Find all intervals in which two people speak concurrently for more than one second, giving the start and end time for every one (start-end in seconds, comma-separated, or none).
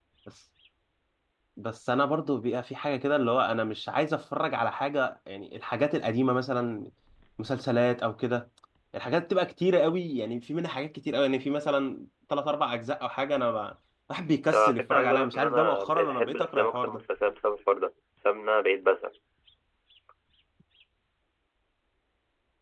14.5-17.0